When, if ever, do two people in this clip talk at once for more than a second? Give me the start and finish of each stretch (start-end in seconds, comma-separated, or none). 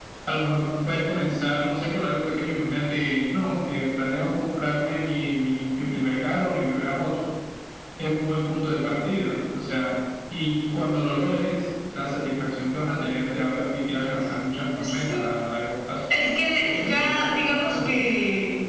16.6-18.0